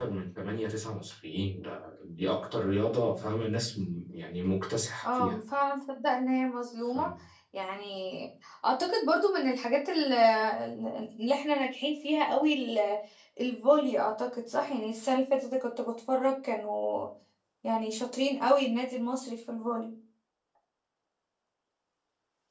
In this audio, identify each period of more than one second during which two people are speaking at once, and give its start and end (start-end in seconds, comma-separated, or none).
none